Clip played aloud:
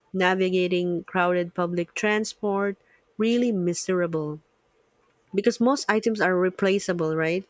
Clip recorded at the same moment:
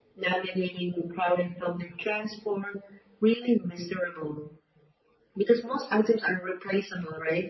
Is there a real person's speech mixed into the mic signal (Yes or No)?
No